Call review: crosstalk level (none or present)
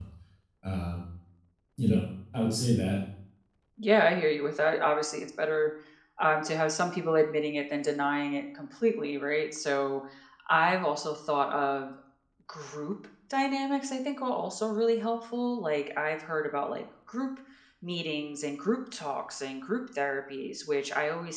none